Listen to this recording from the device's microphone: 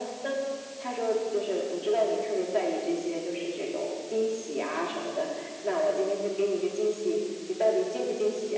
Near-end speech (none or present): none